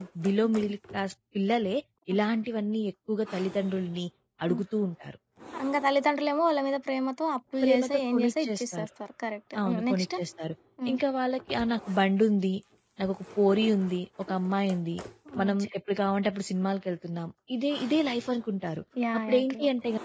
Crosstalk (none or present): present